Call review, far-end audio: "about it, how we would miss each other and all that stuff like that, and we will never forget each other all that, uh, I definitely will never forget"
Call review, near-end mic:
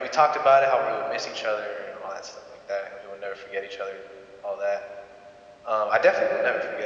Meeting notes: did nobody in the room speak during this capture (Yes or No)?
Yes